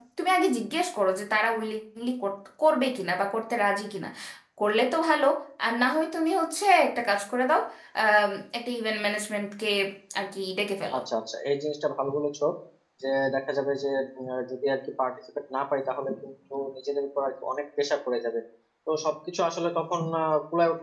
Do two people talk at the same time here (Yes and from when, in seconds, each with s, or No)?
No